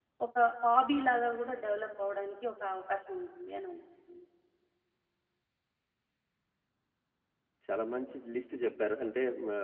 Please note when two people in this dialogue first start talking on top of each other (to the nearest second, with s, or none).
none